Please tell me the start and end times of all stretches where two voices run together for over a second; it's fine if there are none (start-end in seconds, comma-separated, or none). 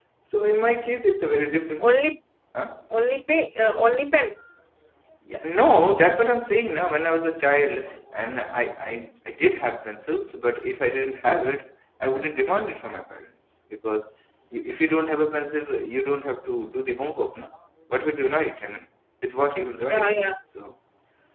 none